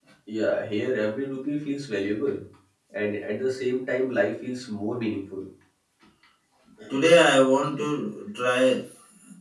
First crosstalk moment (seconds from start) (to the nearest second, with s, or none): none